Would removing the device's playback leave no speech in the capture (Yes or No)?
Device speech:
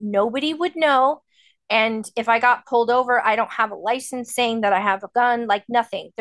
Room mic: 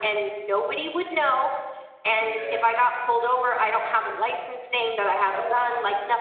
No